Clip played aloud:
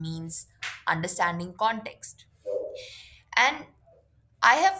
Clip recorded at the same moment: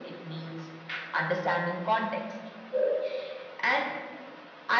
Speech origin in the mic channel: echo only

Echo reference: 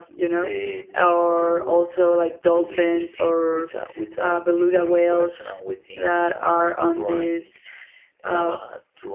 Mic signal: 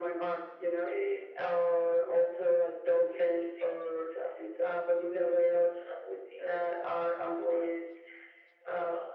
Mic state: echo only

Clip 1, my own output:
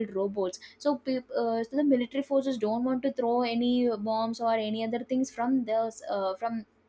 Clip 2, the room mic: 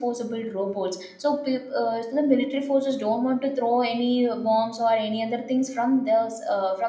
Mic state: echo only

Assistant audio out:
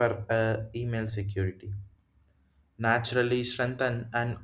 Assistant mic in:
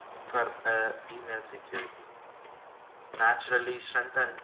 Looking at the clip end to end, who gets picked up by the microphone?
echo only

